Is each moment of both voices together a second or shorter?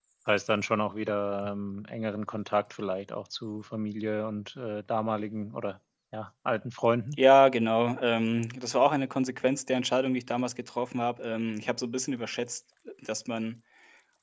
Yes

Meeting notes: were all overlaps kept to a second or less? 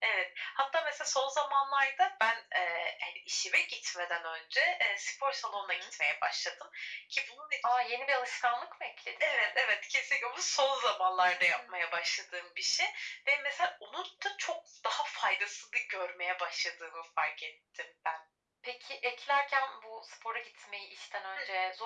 Yes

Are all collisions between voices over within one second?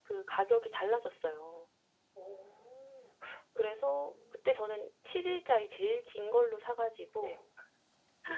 Yes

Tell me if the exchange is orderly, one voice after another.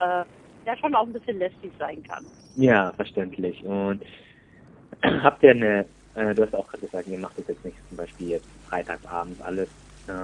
Yes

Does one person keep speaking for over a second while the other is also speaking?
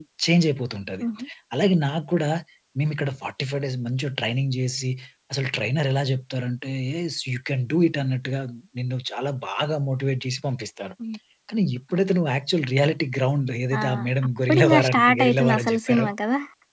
Yes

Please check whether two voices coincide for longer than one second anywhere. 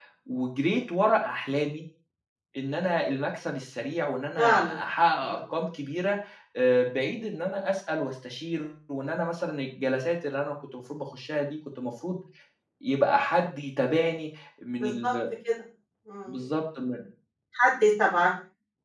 No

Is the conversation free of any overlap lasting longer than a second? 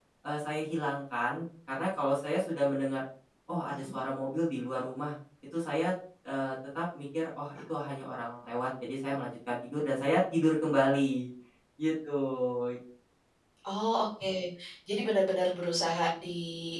Yes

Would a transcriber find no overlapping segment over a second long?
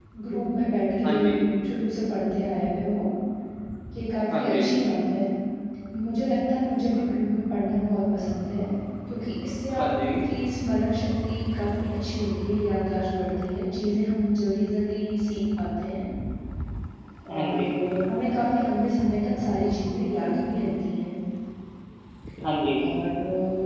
Yes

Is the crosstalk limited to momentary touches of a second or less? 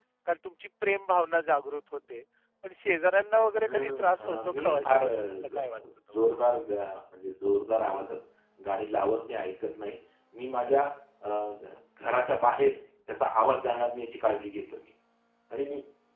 No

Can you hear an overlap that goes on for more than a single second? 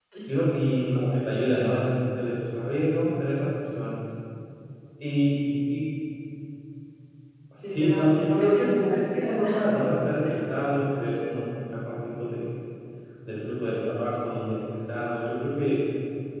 Yes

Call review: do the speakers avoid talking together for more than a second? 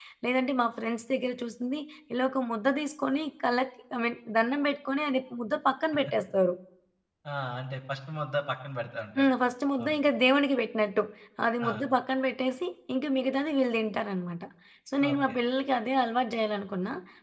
Yes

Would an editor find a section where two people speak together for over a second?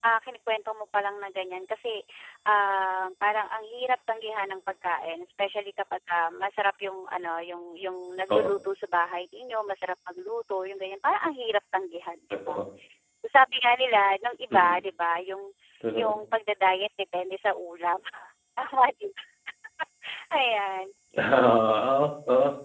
No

